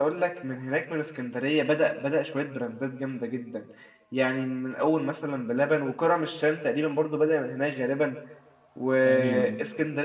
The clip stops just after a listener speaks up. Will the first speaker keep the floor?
Yes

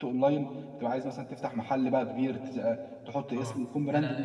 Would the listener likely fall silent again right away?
No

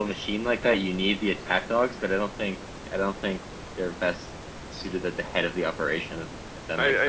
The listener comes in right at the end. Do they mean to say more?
Yes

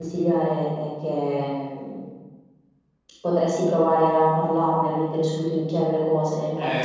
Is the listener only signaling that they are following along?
Yes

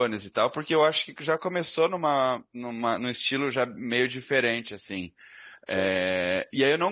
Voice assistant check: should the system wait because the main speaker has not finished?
Yes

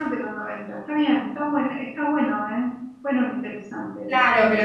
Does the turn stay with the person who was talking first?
No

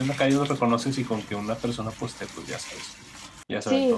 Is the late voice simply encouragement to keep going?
No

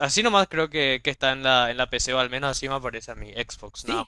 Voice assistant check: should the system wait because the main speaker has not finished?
No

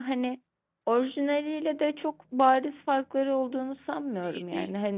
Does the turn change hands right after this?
Yes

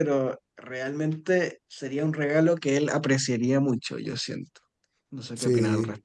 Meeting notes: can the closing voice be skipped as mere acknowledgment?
No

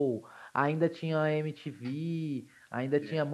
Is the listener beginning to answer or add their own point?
No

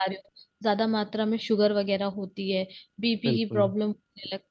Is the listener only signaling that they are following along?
Yes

